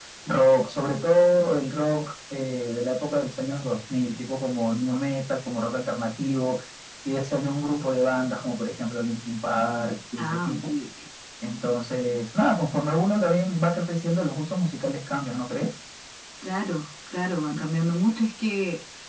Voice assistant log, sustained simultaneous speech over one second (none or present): none